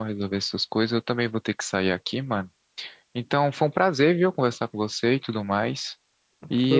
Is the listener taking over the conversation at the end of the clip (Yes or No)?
Yes